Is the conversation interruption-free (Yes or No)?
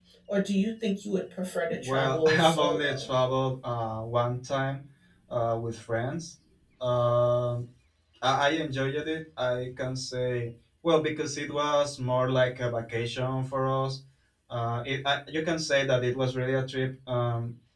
No